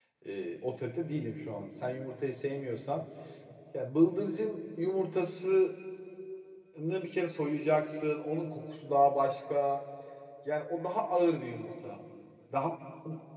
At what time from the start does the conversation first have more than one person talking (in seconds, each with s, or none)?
none